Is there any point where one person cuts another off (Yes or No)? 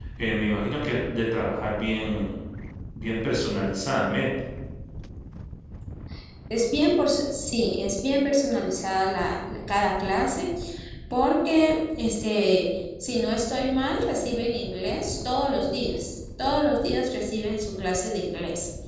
No